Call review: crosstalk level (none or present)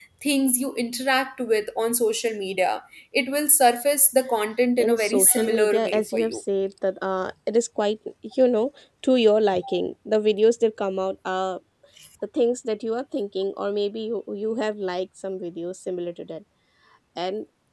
present